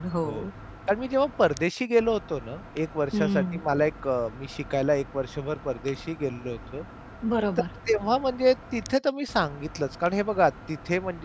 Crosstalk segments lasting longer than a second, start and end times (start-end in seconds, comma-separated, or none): none